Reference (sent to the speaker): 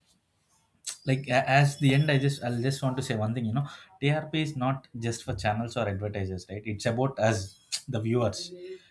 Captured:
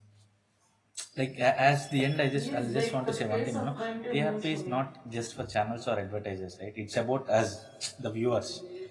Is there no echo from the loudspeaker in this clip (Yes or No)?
No